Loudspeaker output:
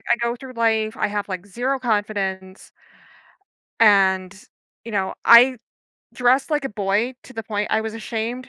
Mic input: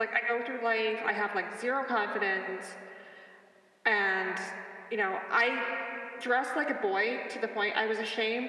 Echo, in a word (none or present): present